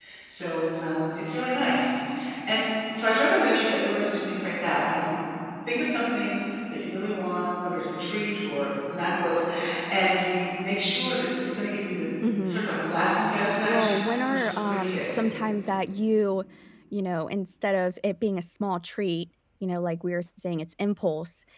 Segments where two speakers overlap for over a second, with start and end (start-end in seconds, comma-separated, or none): 13.6-15.0